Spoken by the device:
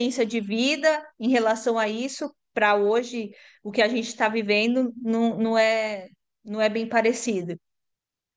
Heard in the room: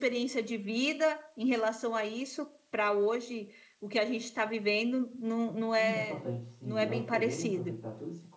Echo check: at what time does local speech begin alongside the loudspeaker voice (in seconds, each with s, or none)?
5.7 s